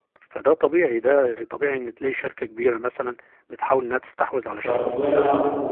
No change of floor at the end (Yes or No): No